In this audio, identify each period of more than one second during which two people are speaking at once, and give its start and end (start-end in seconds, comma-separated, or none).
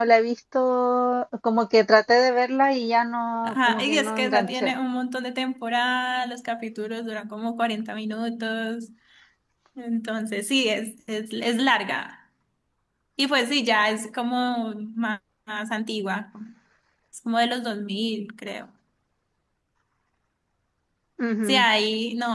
3.4-4.7